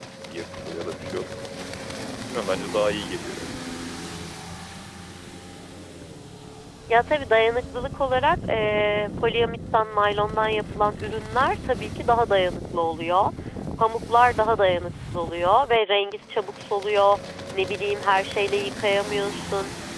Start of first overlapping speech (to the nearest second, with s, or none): none